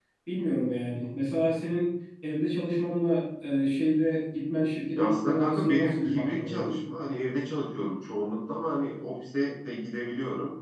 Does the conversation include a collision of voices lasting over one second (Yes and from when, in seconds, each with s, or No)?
Yes, from 5.0 s